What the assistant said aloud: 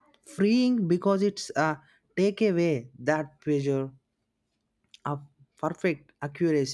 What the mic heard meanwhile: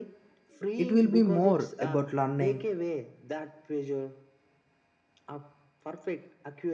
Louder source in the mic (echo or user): user